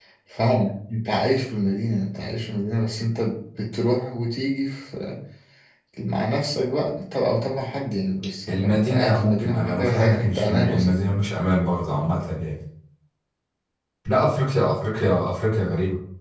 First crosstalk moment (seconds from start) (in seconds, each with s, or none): 8.5 s